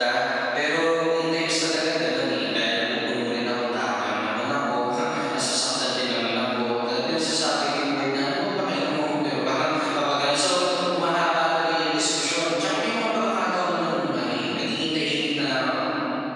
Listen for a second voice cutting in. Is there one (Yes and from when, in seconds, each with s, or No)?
No